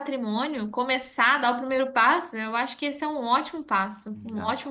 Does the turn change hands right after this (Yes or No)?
Yes